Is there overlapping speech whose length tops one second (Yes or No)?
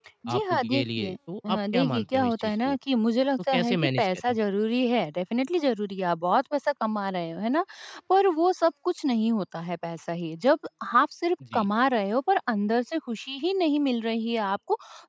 Yes